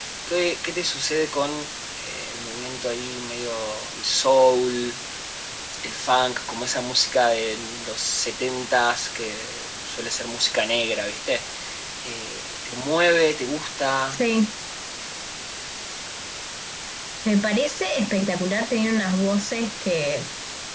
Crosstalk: none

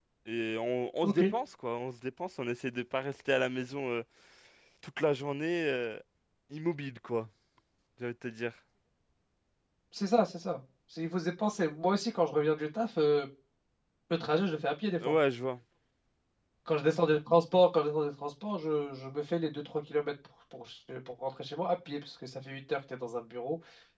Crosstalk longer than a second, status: none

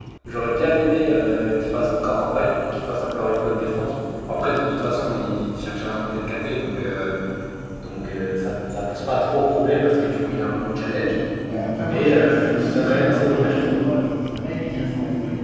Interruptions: present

